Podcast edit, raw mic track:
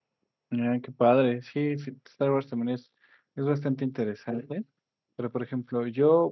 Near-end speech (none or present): present